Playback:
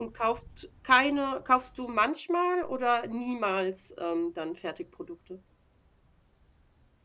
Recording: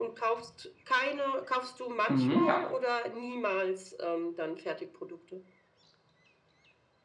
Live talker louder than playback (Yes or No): Yes